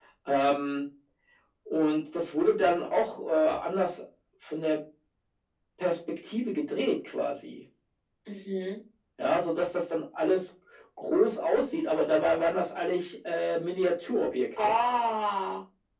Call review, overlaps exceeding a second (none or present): none